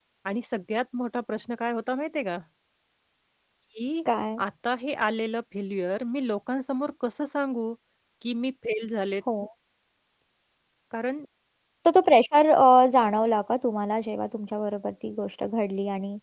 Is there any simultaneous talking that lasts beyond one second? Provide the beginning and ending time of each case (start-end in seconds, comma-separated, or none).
none